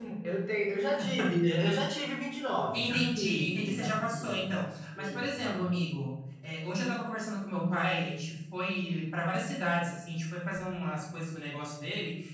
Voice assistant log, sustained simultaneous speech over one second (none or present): present